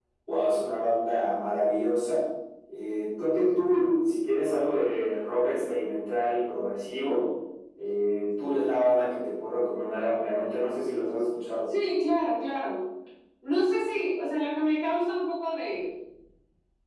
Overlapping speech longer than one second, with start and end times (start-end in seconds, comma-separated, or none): none